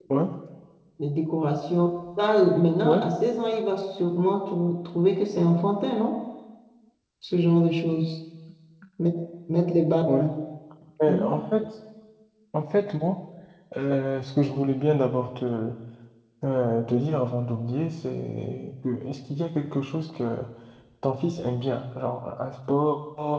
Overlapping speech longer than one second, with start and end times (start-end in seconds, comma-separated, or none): none